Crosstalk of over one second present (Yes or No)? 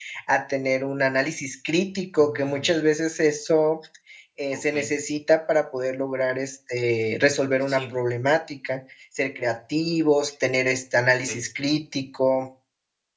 No